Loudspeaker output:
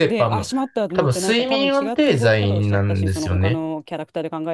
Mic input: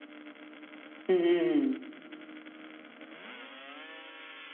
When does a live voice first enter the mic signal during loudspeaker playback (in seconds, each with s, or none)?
1.1 s